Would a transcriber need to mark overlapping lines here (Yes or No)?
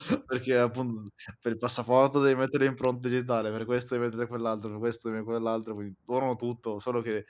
No